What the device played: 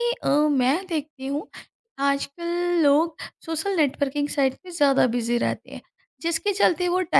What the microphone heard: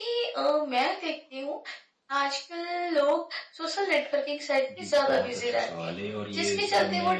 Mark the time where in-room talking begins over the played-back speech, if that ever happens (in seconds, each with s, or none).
4.7 s